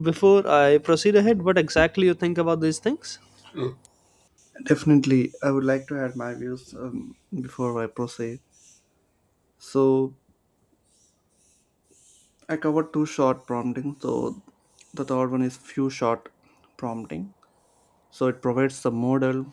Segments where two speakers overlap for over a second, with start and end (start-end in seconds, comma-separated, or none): none